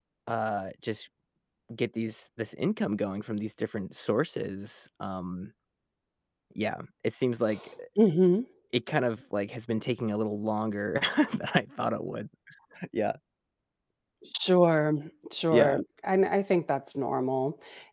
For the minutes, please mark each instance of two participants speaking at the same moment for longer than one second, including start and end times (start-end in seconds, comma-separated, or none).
none